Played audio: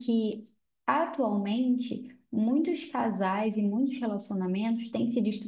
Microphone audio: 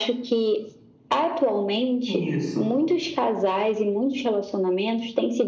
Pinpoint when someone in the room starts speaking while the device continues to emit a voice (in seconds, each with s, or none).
2.1 s